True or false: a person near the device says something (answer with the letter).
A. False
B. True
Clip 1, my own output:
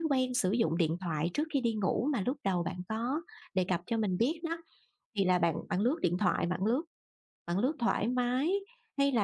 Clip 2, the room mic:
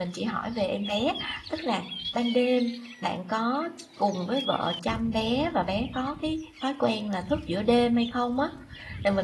B